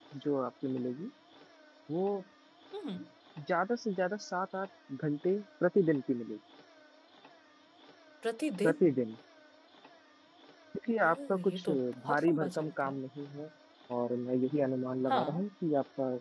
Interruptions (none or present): present